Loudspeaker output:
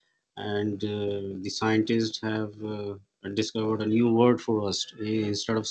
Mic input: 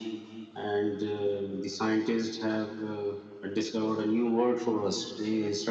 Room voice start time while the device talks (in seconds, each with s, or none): none